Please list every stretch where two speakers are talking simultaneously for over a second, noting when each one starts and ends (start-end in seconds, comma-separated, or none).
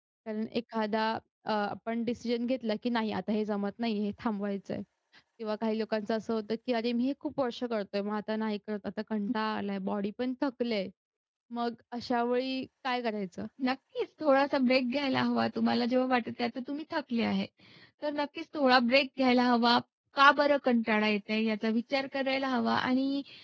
none